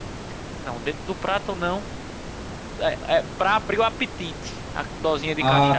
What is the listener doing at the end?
taking over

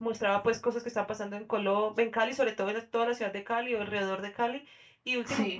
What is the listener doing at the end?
listening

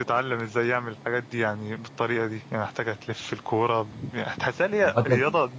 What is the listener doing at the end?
listening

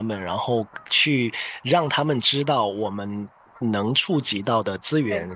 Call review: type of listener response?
listening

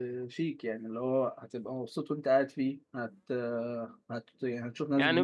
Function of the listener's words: taking over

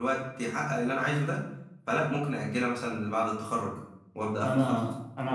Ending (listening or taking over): taking over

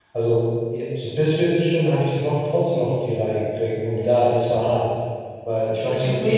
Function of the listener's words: taking over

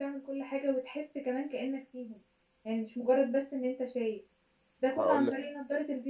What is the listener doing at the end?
listening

